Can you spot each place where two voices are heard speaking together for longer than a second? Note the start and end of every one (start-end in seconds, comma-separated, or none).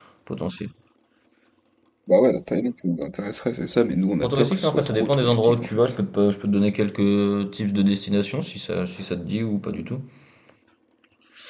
4.2-6.0